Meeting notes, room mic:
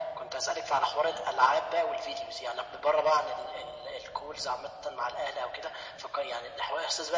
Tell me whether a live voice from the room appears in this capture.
No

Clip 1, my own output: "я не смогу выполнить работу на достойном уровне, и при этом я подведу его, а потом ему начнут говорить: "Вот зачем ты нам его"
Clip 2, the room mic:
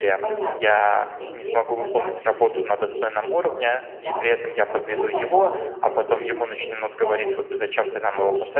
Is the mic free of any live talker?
No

